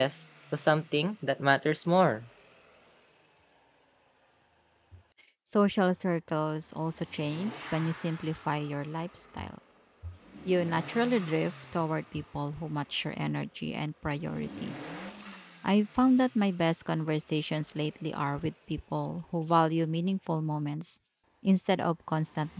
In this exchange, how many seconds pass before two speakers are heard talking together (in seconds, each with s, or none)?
none